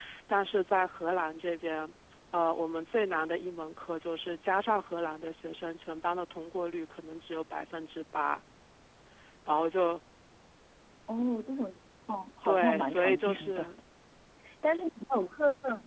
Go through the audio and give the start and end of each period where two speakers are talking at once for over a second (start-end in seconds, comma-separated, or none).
12.4-13.7